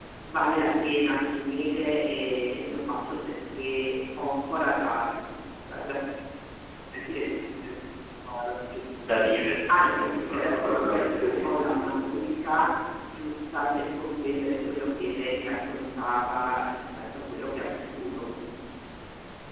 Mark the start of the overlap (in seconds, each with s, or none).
9.8 s